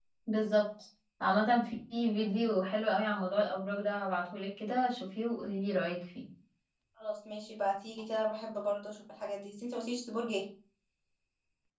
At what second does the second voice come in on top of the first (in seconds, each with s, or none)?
none